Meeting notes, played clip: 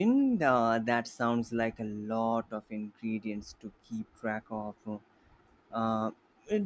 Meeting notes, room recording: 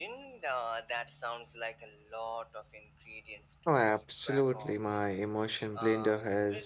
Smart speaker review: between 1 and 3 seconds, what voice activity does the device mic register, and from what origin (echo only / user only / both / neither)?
echo only